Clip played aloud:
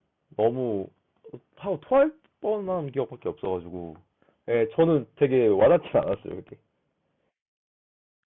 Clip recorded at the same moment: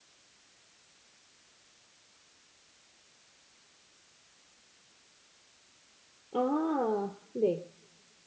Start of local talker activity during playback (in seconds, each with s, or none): 6.3 s